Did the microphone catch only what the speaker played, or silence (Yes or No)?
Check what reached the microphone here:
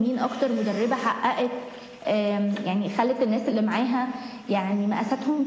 Yes